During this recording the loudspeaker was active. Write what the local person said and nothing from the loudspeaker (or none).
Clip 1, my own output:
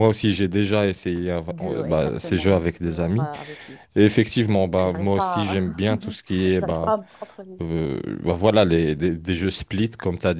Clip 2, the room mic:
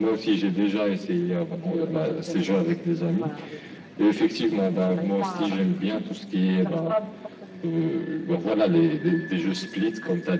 none